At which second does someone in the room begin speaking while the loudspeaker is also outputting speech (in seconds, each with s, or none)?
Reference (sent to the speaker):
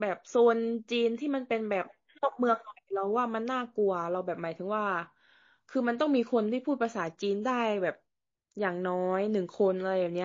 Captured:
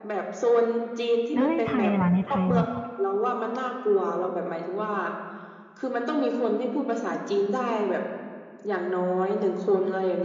1.3 s